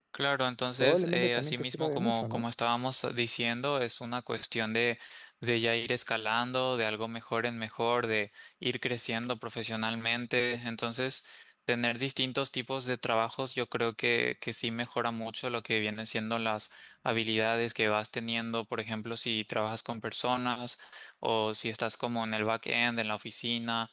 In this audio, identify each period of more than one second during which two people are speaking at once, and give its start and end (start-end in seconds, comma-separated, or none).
0.8-2.4